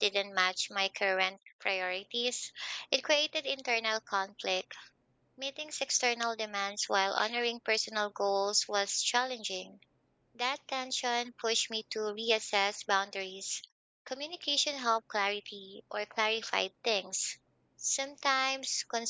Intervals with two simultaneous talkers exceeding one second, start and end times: none

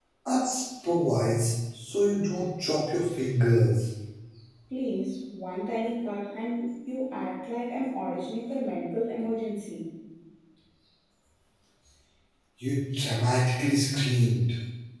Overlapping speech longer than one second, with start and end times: none

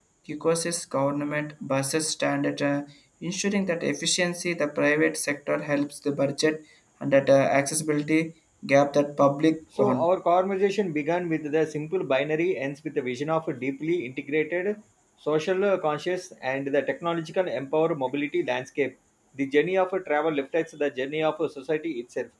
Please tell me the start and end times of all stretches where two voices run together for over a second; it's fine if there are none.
none

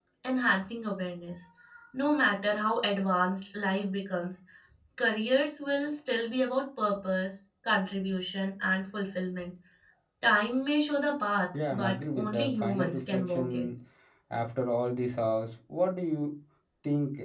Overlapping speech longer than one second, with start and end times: 11.7-13.6

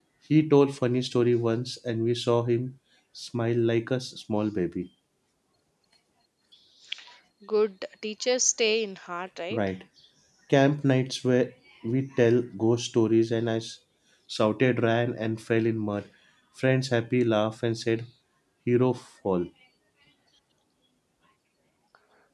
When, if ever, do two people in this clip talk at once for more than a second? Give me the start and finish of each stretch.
none

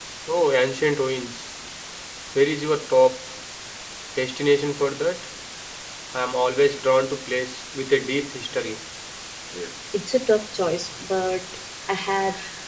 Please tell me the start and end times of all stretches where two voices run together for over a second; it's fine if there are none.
none

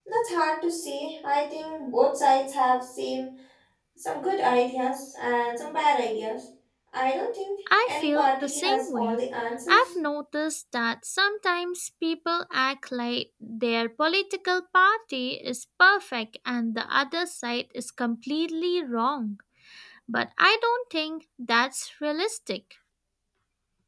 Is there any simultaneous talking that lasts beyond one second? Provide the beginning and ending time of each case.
7.8-9.2

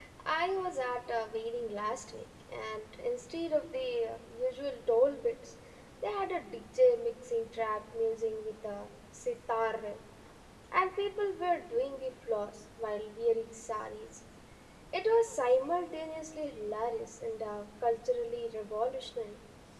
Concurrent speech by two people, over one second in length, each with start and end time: none

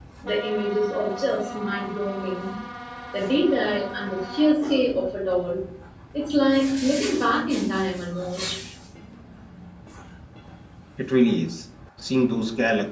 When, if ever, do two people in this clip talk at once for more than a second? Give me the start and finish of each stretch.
none

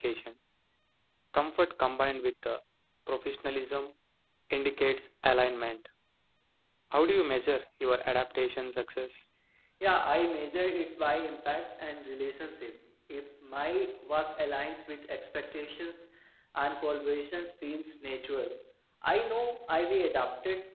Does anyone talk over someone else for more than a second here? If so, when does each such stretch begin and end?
none

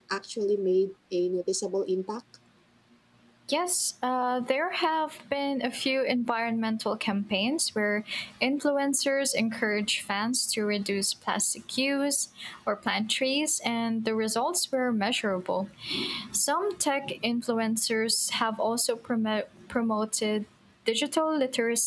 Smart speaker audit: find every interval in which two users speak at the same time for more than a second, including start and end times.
none

